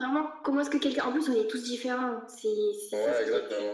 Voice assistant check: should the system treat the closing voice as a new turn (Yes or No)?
Yes